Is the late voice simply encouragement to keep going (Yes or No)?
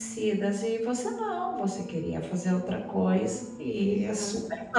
No